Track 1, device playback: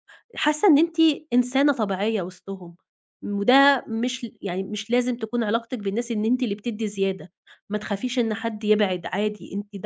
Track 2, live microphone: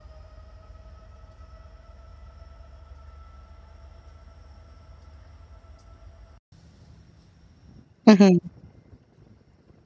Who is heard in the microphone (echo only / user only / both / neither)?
user only